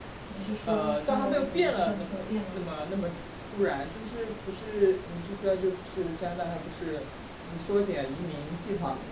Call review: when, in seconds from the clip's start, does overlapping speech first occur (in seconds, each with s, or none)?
0.7 s